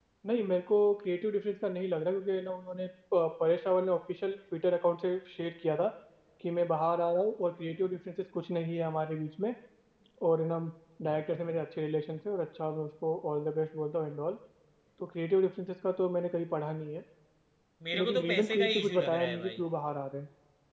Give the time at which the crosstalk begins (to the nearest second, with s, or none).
18 s